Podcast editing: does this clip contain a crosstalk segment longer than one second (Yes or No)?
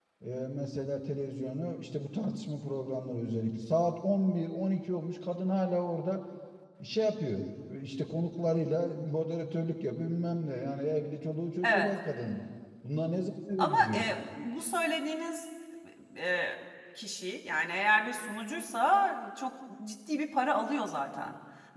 No